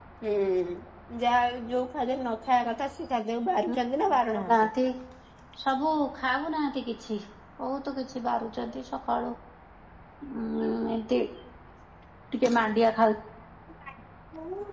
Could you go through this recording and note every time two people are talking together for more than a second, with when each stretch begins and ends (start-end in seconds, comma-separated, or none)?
none